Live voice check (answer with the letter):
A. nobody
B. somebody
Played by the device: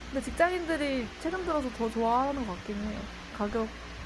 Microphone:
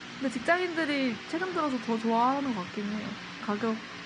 A